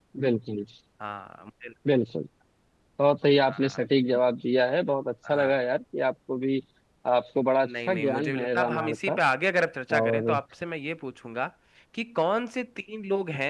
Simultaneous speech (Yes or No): Yes